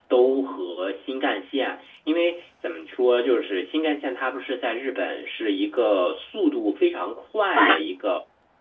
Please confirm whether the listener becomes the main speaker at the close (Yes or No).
No